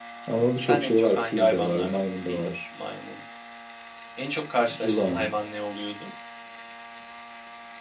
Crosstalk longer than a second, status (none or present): present